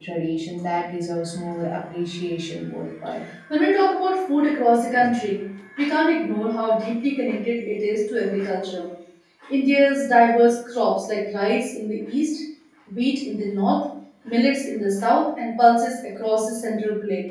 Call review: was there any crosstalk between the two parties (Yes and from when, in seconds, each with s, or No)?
No